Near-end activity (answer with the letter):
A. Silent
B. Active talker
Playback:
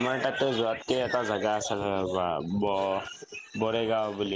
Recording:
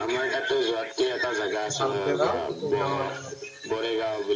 B